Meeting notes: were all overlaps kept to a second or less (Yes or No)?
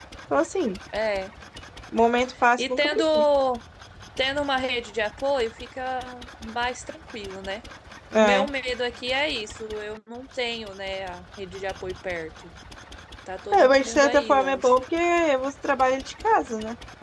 No